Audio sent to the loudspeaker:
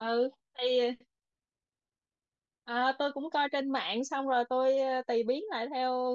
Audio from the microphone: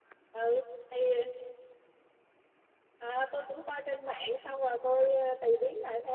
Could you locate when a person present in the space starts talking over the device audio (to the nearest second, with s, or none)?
none